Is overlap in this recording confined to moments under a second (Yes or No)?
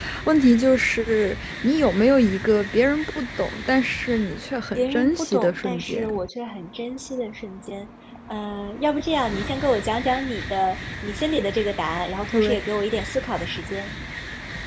No